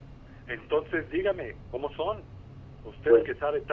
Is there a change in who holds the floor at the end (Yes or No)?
No